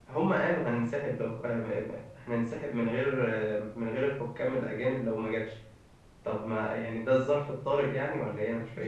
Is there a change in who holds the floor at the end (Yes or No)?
Yes